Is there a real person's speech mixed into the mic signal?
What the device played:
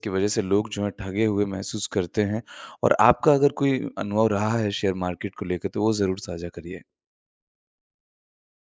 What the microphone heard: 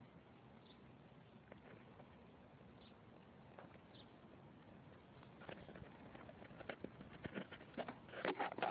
No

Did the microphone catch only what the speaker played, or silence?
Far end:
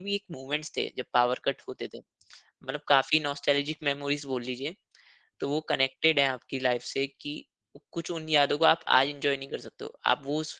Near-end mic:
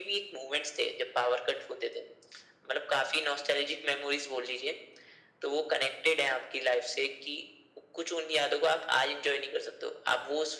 Yes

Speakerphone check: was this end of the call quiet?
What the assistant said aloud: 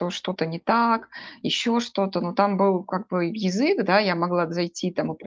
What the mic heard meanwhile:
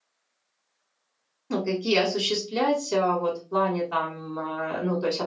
No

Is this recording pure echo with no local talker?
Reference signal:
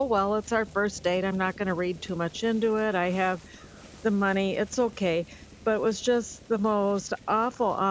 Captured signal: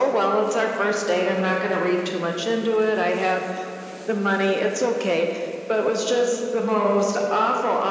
Yes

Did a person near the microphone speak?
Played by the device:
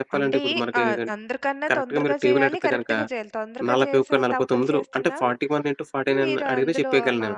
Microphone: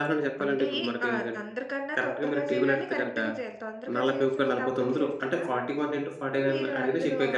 No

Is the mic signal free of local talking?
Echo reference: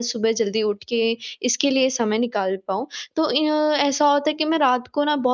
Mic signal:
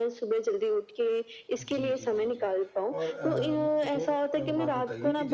No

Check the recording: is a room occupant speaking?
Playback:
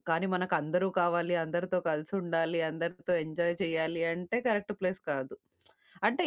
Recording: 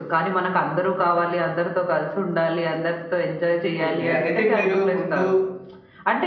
Yes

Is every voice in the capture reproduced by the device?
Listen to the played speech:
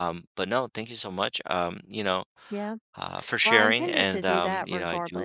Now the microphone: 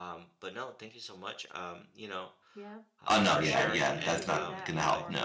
No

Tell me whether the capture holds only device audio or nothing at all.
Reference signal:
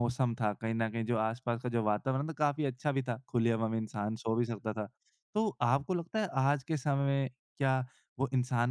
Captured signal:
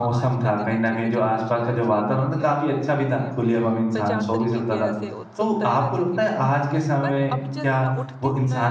No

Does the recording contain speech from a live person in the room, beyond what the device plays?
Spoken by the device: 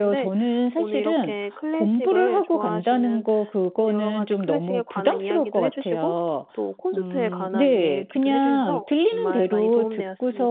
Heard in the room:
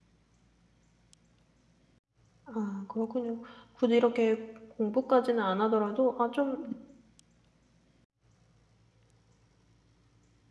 Yes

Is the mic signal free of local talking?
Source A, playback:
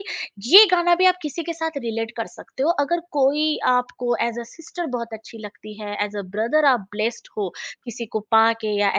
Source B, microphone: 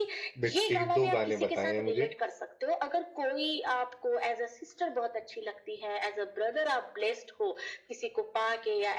No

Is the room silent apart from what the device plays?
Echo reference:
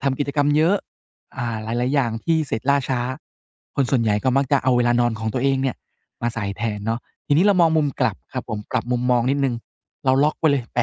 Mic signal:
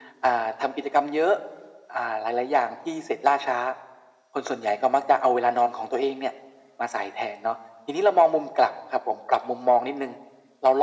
Yes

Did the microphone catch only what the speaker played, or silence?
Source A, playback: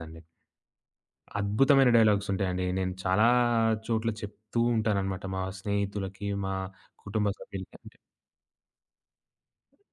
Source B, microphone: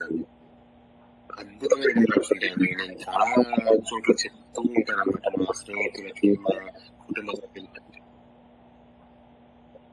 Yes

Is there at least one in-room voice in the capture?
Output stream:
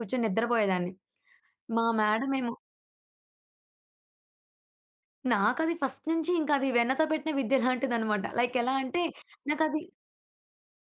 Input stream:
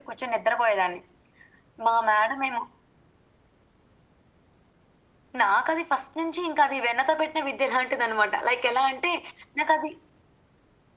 No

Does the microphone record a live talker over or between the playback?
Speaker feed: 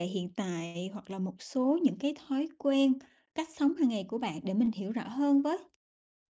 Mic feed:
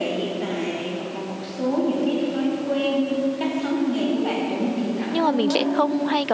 Yes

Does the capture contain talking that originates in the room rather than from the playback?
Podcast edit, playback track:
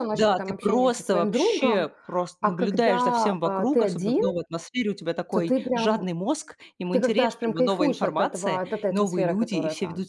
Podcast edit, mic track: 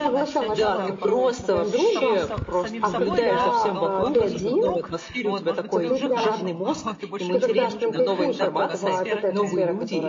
Yes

